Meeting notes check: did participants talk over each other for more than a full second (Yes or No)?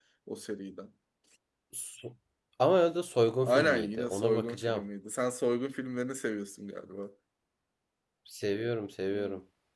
Yes